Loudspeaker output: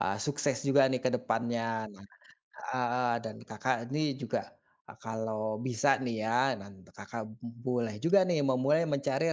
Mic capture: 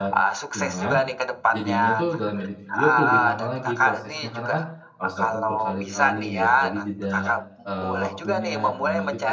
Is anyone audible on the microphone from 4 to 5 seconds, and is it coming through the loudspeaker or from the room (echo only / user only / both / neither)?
both